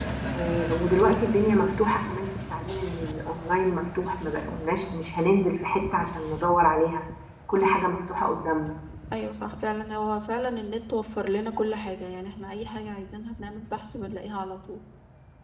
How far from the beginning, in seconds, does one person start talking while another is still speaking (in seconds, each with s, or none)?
none